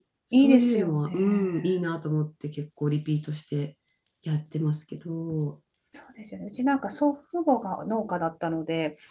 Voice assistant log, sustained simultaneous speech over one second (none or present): present